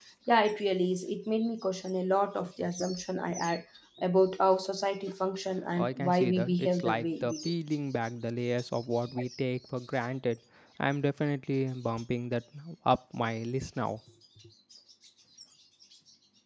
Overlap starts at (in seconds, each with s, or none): 5.8 s